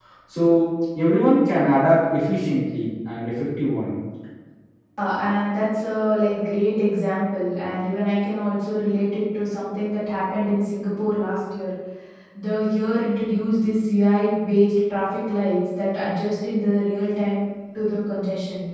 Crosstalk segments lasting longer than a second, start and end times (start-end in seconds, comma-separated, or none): none